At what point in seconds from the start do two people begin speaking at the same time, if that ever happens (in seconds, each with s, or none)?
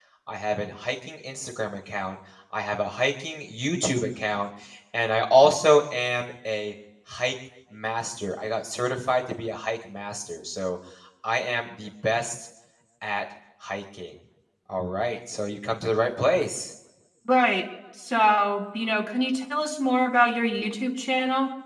none